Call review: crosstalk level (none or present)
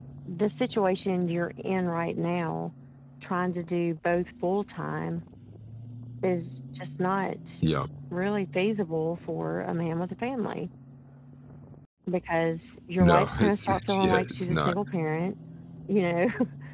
present